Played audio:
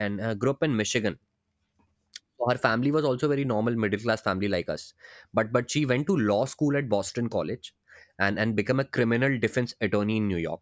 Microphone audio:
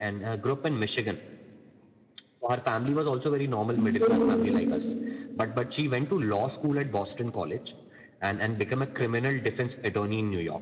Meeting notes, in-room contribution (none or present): present